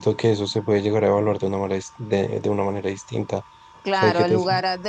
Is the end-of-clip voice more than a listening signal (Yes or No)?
Yes